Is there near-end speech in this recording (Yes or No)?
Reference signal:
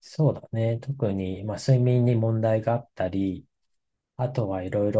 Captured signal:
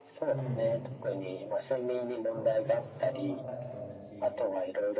Yes